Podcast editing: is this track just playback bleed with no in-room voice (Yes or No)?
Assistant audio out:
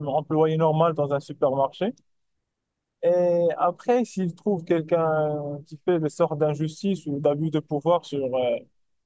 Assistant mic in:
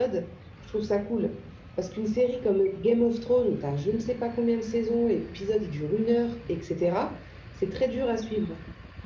No